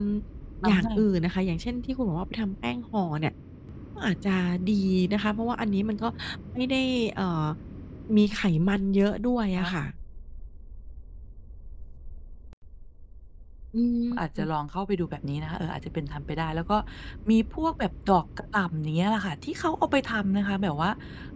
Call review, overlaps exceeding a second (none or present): none